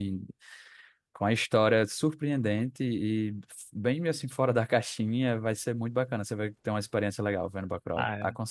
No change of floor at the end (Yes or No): No